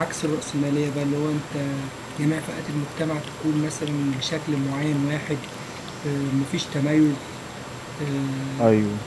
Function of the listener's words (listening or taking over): listening